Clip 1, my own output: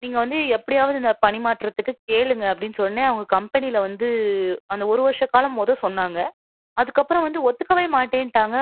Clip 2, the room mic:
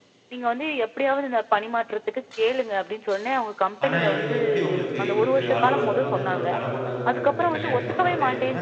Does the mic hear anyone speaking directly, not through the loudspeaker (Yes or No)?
Yes